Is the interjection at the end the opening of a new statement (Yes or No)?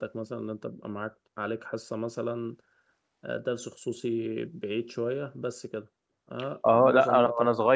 Yes